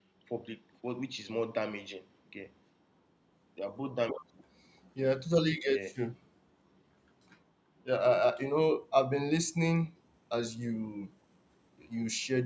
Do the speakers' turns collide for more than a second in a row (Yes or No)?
No